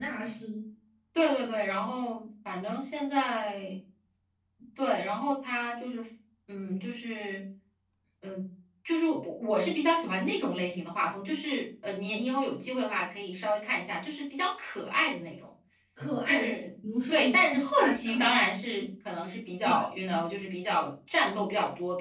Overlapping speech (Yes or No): Yes